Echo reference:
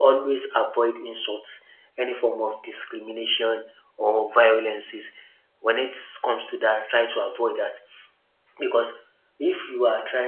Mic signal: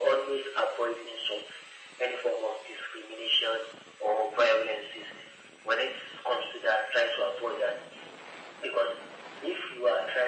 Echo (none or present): present